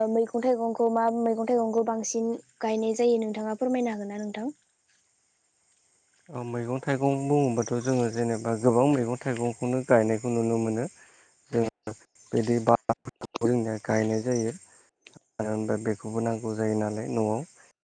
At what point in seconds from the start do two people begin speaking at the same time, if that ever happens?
none

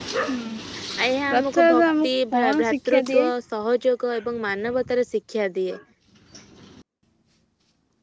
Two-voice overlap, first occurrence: 1 s

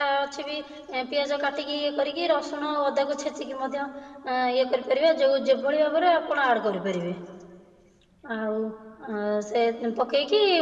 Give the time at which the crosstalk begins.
none

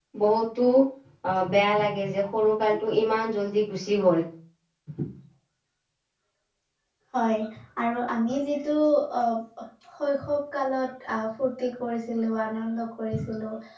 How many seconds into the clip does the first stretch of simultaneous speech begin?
none

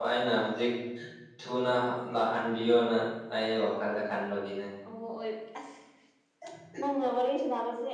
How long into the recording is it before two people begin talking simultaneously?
none

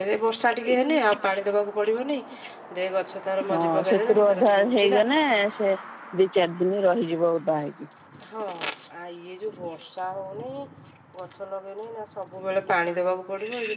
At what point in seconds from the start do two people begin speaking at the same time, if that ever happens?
4 s

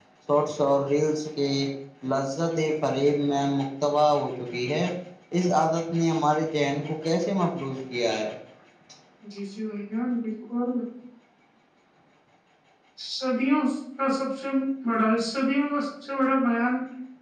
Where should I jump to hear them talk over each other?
none

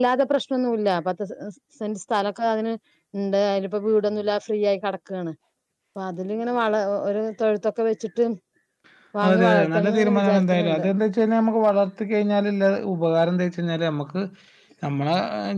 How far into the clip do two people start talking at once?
9 s

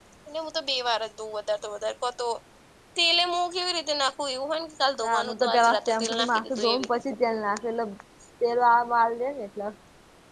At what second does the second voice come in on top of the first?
5 s

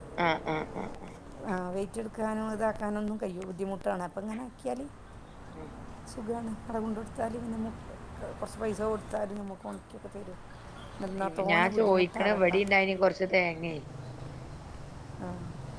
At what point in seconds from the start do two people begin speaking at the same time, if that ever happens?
11 s

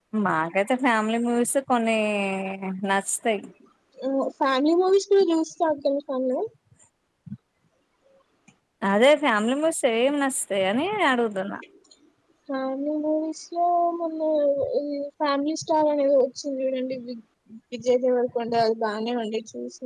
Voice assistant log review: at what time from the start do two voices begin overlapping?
none

